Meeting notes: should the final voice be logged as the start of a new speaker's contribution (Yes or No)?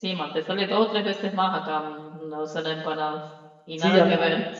Yes